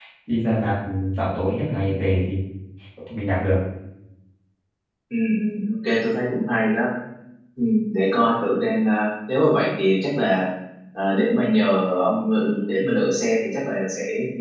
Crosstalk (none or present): none